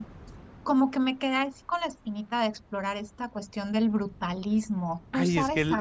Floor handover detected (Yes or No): Yes